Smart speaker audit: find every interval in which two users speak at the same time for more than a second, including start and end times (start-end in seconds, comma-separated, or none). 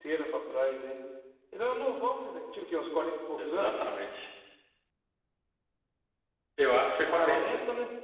none